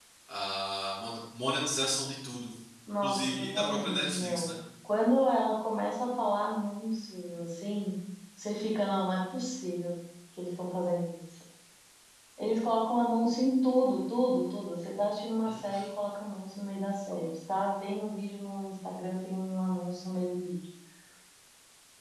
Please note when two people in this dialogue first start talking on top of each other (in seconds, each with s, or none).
3.0 s